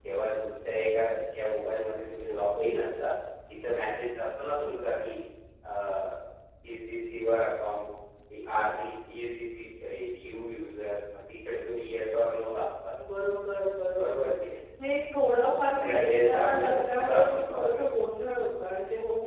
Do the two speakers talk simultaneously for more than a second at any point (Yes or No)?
Yes